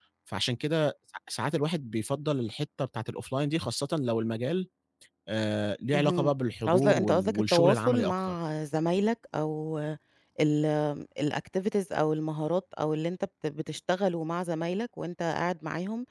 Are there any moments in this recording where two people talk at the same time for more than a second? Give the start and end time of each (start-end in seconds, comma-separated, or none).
6.7-8.4